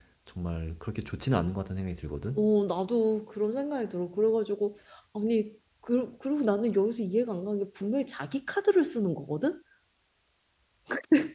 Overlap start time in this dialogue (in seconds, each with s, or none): none